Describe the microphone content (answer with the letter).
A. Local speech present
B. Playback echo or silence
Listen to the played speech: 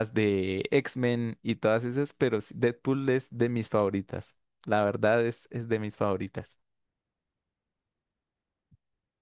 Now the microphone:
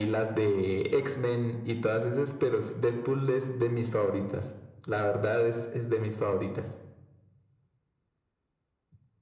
B